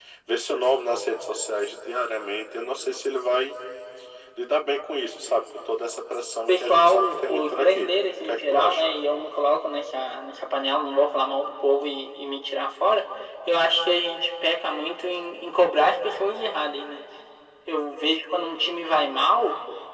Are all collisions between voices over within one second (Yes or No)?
No